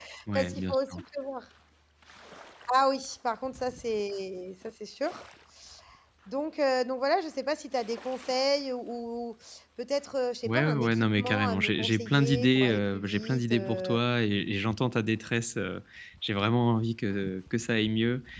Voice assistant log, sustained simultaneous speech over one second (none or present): present